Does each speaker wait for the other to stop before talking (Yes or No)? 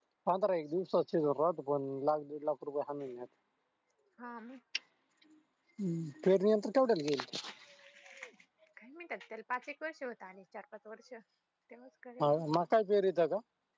Yes